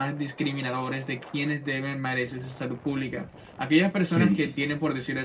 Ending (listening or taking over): listening